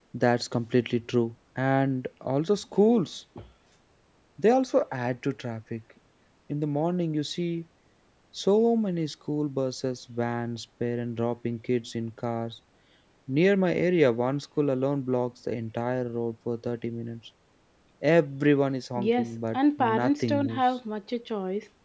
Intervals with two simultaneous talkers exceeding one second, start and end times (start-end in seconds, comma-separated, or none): 19.0-20.7